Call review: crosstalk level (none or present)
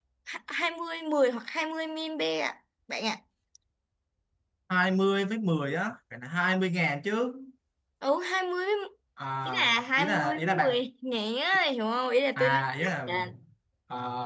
present